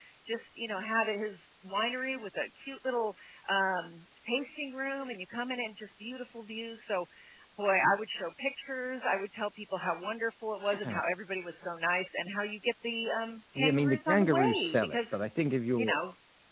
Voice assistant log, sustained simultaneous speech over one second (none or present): present